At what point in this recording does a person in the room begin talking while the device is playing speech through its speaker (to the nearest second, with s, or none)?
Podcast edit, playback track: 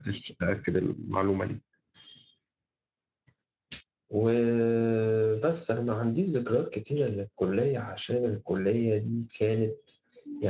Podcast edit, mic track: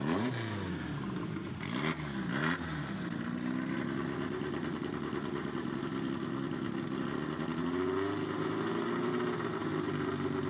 none